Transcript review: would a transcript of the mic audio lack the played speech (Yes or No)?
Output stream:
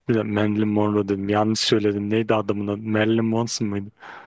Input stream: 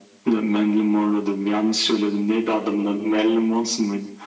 No